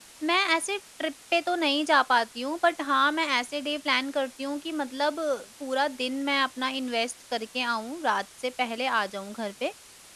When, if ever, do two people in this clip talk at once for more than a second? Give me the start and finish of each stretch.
none

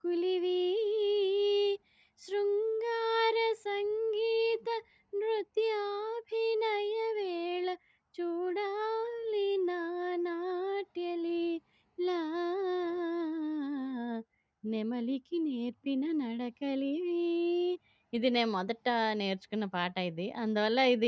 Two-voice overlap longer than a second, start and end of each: none

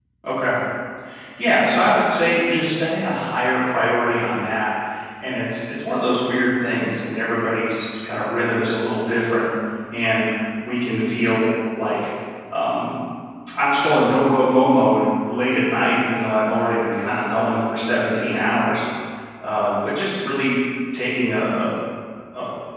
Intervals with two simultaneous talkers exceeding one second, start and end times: none

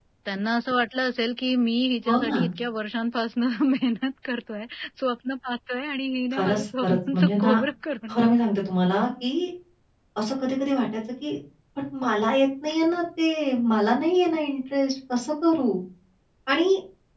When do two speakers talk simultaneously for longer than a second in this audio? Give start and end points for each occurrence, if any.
6.3-7.6

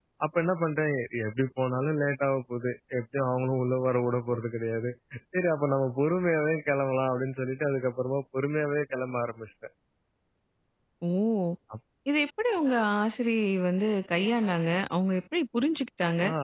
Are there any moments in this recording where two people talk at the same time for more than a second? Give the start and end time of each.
none

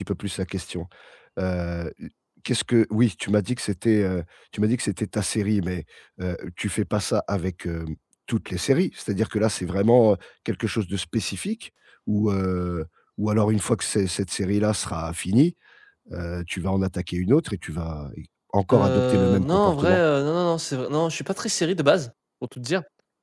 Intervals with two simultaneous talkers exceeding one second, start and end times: 18.7-20.0

